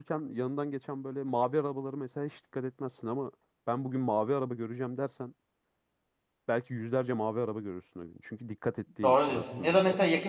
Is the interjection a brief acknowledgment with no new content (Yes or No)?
No